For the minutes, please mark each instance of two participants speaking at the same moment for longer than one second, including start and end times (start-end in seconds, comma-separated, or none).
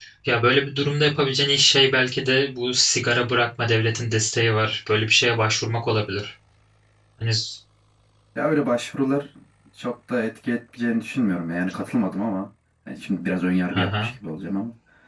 none